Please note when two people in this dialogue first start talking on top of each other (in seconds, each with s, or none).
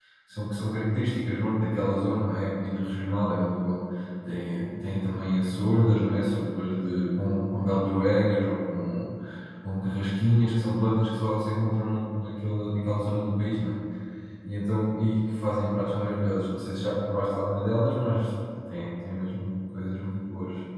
none